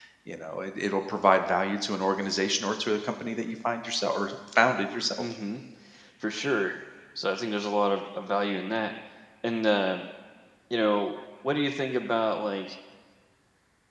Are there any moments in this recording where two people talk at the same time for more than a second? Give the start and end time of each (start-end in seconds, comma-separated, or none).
none